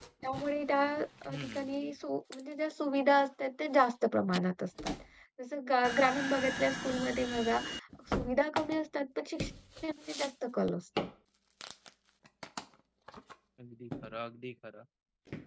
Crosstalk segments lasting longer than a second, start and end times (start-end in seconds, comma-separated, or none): none